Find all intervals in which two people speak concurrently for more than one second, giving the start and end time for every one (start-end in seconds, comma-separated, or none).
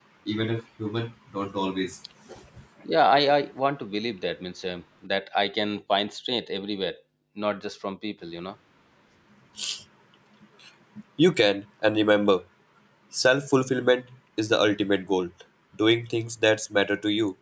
none